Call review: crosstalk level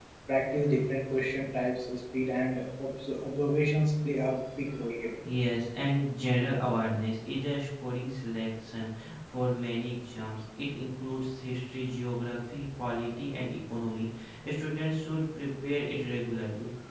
none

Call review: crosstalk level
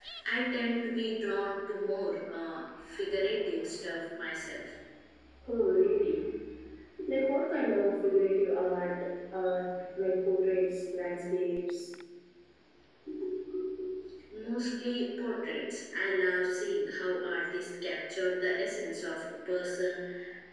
none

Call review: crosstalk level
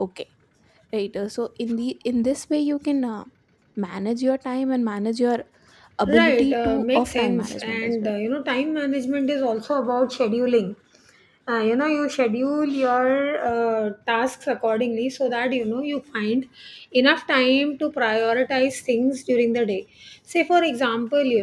present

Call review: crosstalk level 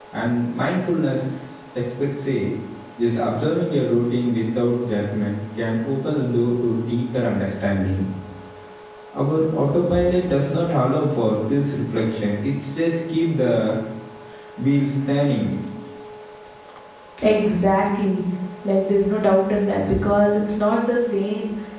none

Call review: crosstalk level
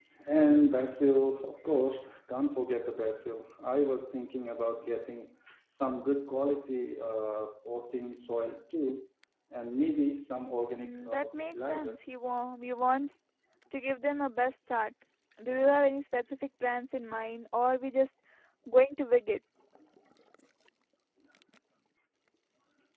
present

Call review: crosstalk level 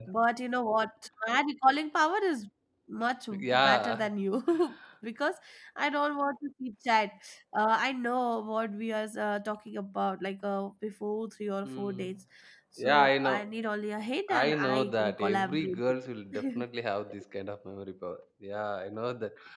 present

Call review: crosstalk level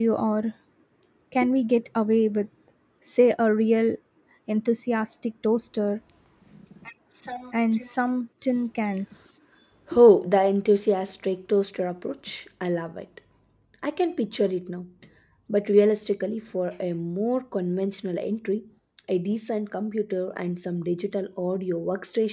none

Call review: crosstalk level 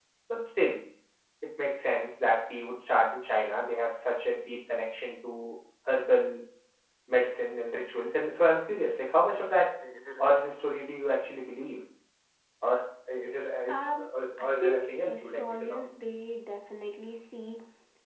present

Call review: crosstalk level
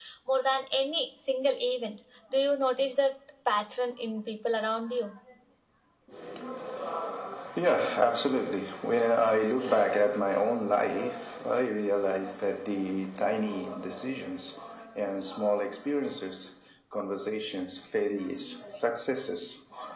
none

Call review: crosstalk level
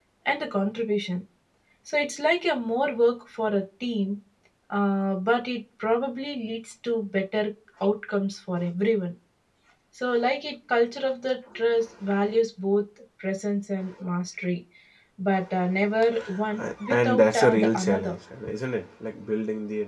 present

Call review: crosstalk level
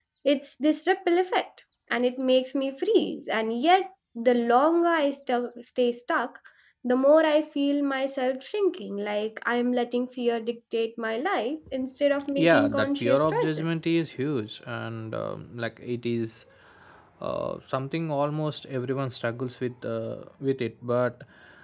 present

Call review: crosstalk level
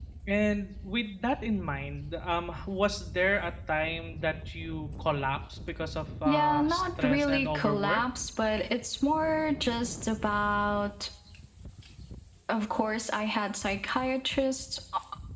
present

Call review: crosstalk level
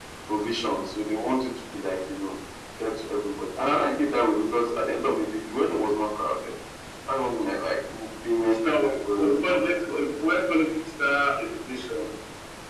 present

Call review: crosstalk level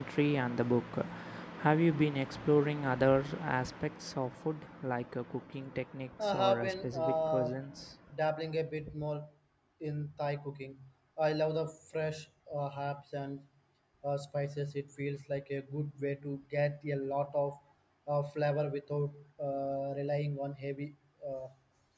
present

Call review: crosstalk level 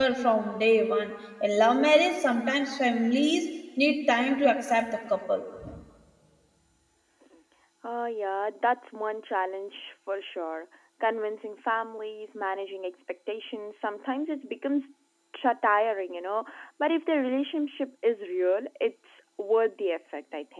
none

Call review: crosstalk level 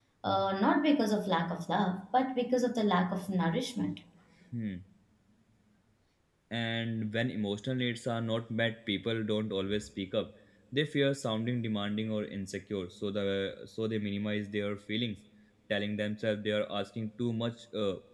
none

